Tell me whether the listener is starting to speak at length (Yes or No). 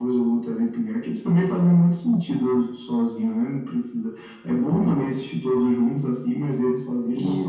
No